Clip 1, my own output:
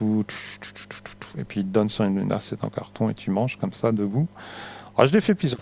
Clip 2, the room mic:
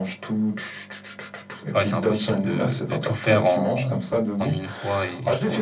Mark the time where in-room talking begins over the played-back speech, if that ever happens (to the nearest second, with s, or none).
2 s